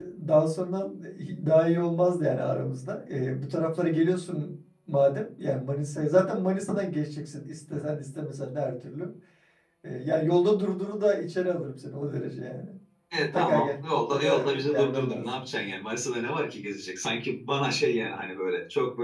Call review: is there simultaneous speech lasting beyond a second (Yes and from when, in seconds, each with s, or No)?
Yes, from 13.1 s